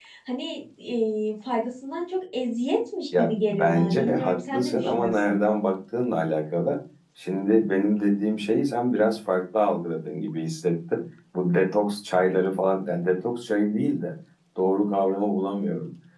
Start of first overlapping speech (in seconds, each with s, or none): 3.1 s